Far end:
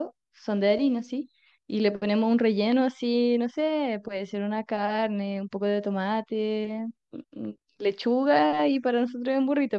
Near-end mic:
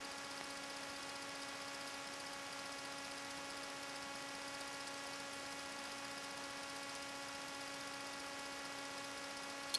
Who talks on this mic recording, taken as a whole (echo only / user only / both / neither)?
neither